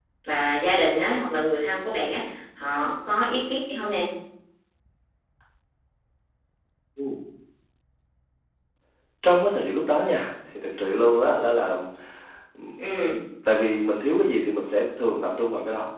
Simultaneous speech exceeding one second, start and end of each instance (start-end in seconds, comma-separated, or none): none